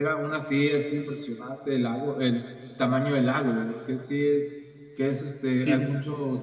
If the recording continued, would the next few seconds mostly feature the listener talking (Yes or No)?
No